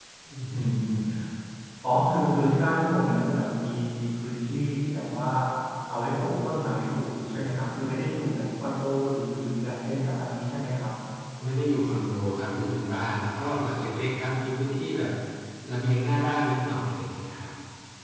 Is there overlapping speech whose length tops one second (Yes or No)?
No